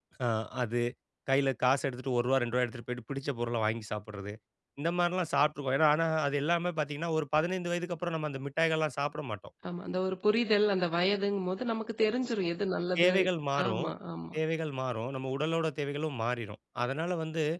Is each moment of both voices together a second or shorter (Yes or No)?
Yes